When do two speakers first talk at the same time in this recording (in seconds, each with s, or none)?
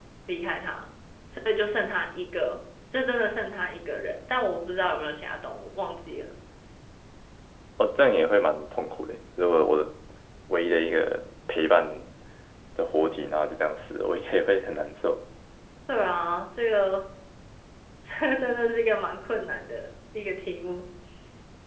none